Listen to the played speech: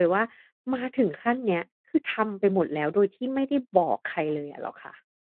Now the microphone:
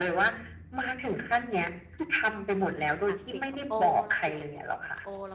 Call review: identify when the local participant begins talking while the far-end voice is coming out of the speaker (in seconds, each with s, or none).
3.1 s